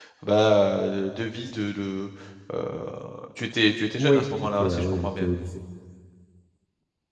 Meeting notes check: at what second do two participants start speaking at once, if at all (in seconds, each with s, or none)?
4.0 s